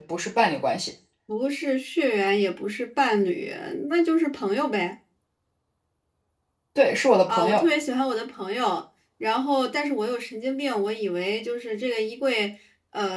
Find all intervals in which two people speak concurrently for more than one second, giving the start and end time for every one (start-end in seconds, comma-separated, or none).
none